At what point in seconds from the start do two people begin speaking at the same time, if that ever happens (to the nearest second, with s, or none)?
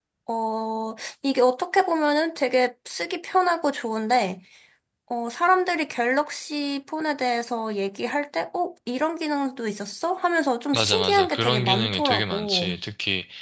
11 s